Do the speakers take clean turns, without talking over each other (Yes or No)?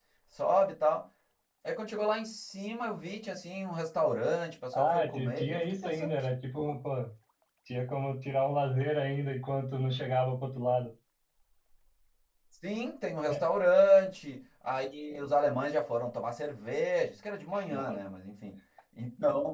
No